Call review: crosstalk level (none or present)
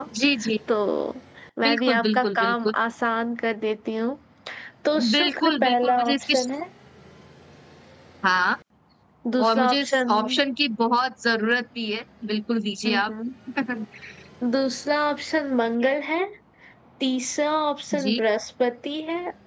present